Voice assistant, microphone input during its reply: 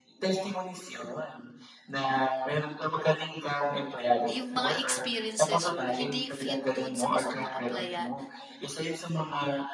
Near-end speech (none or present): present